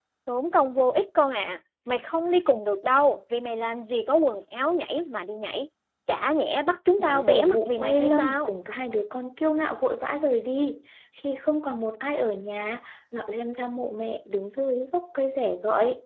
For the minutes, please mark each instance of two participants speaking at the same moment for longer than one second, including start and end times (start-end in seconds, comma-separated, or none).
7.0-8.5